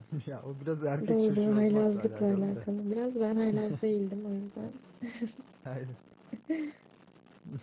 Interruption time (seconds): 1.1 s

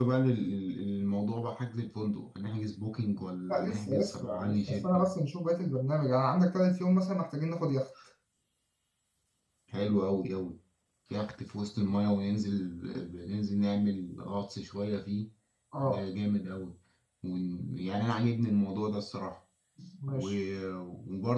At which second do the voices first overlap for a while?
3.5 s

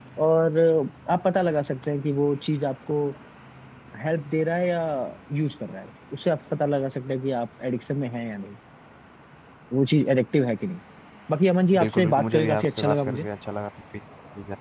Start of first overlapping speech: 11.8 s

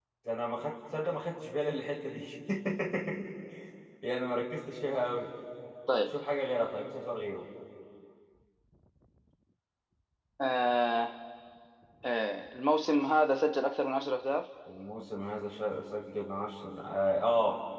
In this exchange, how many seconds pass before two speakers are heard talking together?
none

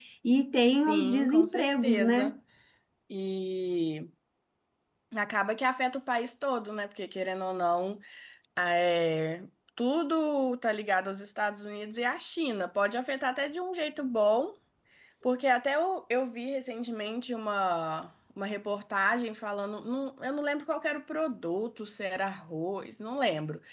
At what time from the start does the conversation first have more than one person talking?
0.9 s

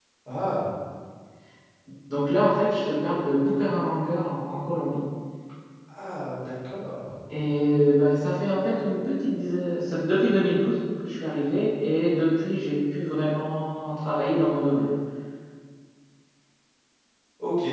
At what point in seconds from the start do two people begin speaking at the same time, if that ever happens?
none

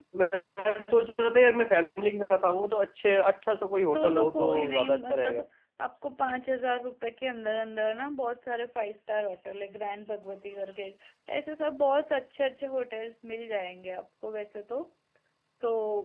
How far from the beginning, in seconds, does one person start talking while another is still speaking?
3.9 s

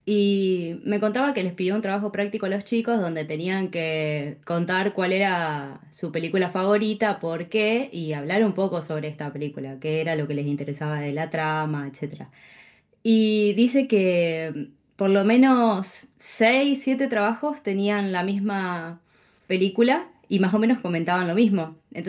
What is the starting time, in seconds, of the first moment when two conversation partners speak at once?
none

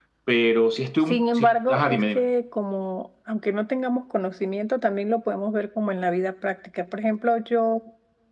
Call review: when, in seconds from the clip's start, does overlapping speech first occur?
1.0 s

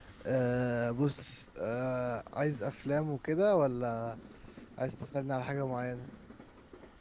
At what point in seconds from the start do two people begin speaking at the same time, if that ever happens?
none

